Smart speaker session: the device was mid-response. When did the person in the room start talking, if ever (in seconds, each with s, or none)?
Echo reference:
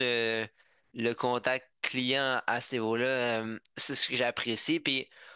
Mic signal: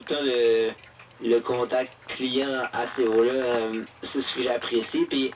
none